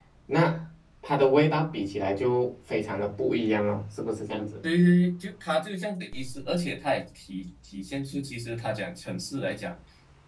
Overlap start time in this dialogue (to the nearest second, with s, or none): none